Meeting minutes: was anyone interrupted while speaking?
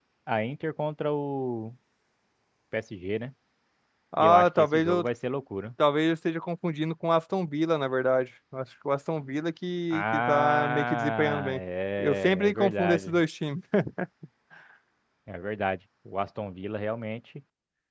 Yes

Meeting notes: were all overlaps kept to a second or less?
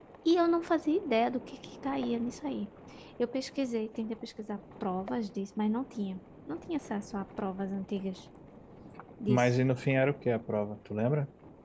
Yes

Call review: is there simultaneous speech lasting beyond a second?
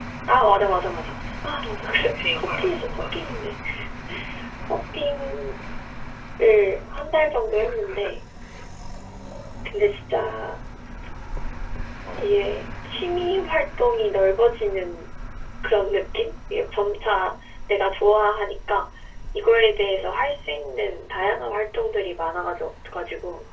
Yes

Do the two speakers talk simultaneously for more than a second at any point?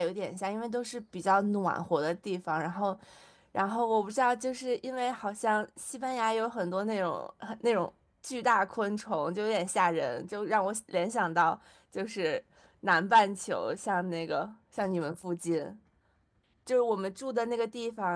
No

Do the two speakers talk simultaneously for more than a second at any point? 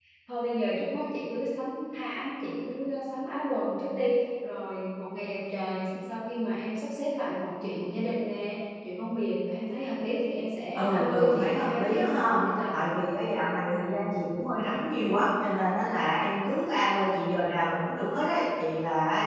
Yes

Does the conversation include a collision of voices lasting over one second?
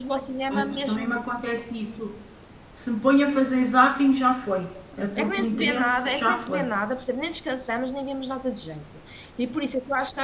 Yes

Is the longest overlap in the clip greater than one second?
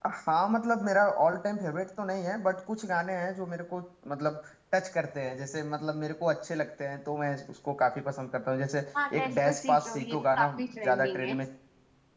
Yes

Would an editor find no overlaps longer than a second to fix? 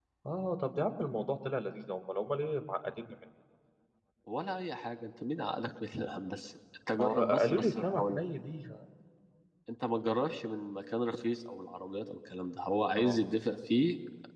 No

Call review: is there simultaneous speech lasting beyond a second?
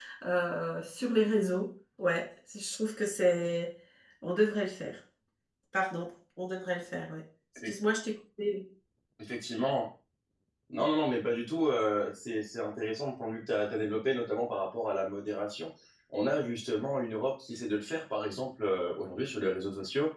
No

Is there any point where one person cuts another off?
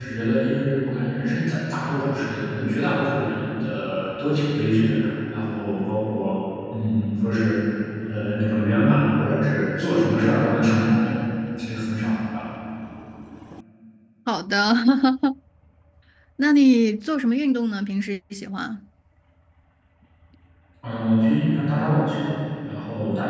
No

